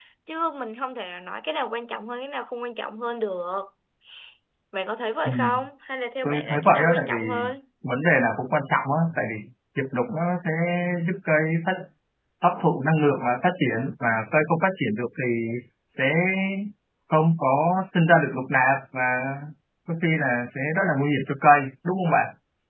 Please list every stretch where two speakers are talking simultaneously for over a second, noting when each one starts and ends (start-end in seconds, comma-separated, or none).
6.2-7.5